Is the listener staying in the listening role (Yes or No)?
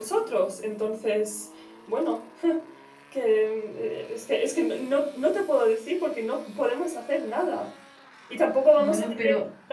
Yes